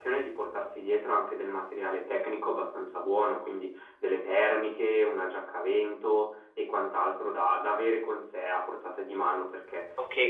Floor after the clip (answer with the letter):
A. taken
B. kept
A